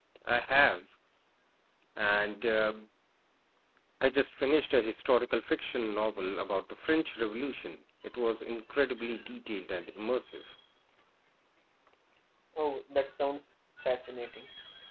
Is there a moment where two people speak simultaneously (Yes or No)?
No